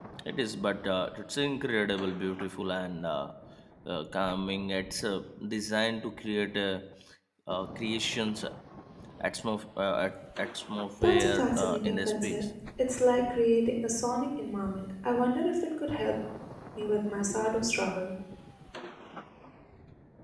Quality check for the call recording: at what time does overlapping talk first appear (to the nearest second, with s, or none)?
11 s